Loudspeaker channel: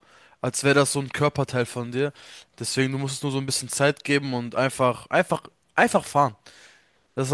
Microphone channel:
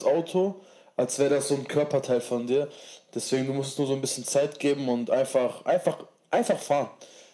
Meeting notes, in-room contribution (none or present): none